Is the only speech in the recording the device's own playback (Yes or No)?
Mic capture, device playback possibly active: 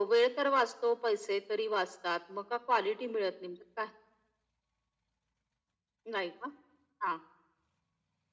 Yes